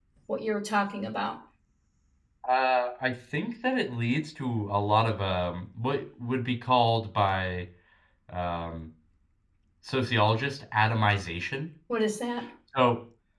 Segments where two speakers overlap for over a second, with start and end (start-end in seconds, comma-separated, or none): none